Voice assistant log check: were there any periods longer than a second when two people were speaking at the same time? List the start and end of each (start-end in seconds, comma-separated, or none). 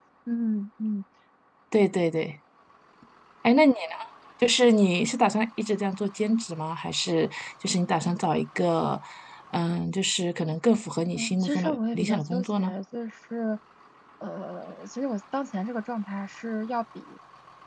11.2-12.7